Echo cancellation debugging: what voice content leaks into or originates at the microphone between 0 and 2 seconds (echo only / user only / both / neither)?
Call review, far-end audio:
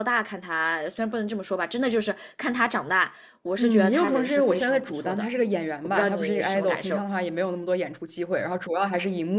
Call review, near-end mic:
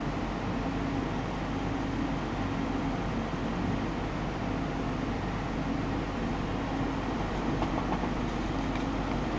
neither